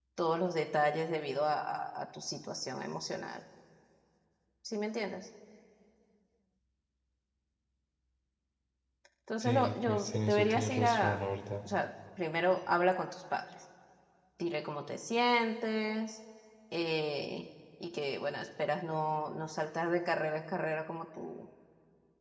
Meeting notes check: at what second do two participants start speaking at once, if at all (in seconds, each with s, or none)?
9.4 s